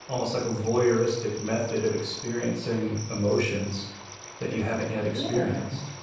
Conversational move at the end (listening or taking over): taking over